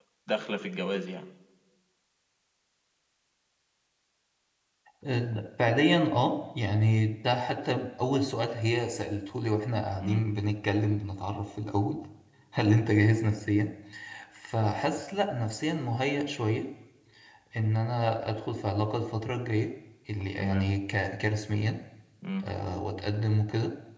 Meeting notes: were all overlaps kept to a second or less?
Yes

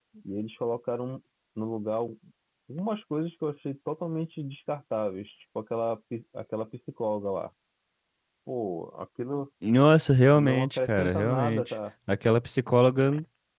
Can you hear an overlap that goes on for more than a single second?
Yes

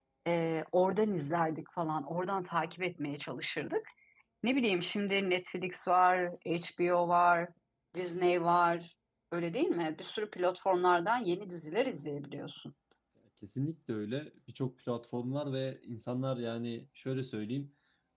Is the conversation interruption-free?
Yes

